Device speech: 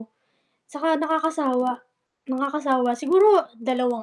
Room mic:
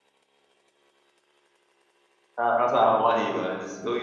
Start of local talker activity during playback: 2.4 s

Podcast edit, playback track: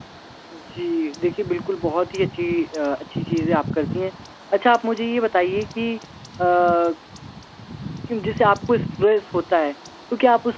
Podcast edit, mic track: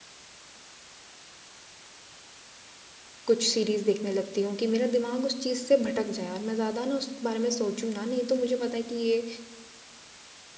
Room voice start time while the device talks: 3.3 s

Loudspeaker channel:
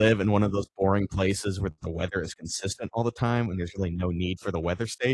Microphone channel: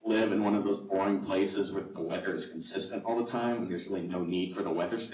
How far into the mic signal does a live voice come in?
none

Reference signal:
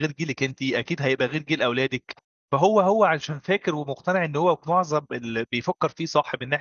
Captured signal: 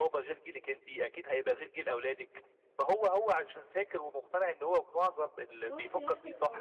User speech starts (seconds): 5.6 s

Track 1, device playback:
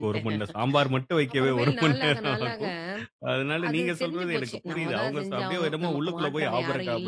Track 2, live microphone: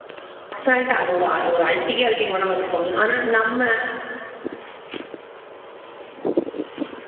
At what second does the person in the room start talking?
0.6 s

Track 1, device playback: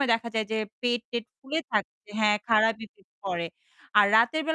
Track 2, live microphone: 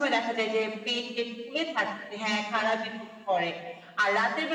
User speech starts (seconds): none

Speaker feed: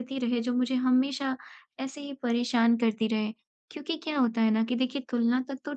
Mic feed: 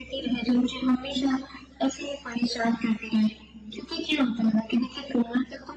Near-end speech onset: none

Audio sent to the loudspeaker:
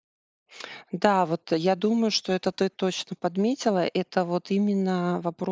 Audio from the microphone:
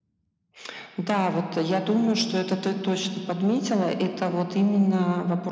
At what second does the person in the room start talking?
none

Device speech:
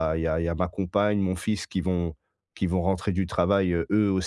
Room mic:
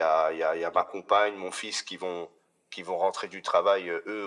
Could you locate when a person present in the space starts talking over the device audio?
none

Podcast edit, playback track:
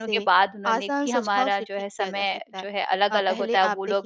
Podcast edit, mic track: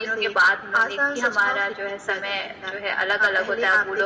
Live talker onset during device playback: none

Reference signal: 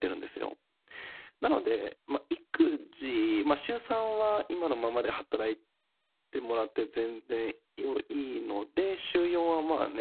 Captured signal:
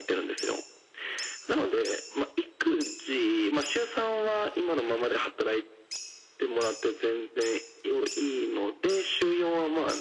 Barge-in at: none

